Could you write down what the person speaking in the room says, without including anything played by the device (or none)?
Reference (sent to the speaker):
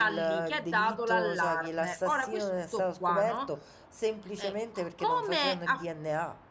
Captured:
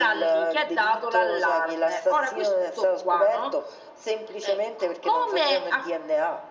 none